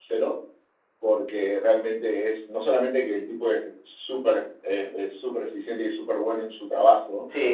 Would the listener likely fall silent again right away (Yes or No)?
No